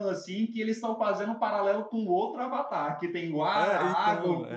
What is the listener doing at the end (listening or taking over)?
taking over